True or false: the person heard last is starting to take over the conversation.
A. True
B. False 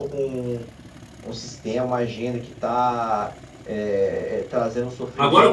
A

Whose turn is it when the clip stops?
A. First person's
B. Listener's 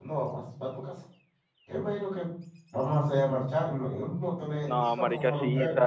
B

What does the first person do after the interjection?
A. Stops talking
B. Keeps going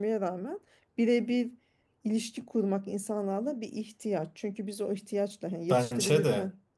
B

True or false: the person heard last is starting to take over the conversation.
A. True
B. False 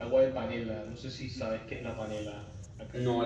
A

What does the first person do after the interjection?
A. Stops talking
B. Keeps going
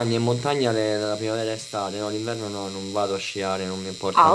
A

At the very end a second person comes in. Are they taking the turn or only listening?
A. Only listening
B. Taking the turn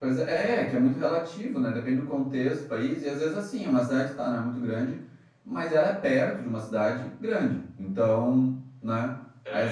A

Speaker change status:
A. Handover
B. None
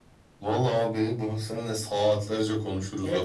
A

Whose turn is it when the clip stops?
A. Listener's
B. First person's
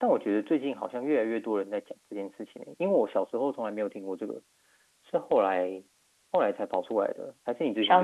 A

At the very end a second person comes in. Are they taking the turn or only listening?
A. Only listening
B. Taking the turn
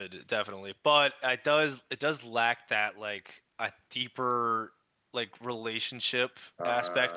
A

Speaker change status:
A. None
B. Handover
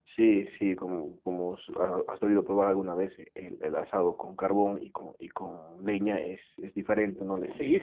B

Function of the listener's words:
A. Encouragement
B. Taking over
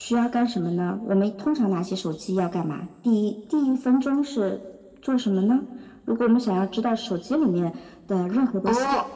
B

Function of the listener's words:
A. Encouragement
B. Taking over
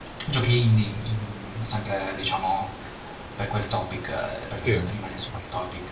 A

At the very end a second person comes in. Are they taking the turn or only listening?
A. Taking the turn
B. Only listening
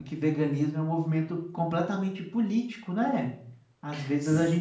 B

